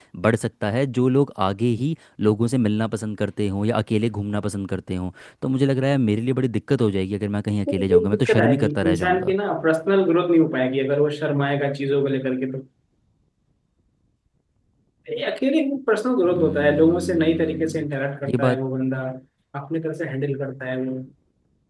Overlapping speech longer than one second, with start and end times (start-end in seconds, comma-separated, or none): 7.7-9.3, 16.2-17.9